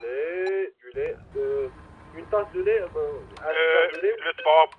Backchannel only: No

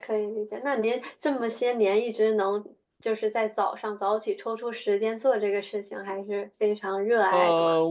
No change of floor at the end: No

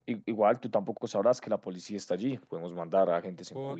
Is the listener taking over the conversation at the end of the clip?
Yes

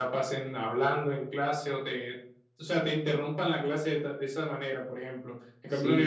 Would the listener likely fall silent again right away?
Yes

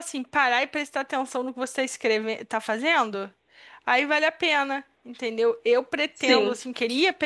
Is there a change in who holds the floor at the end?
No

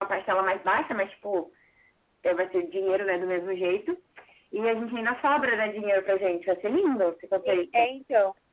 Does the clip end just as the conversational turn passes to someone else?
Yes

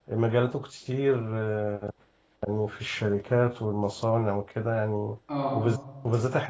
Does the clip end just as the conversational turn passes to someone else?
No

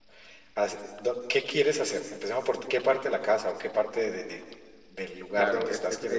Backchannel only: No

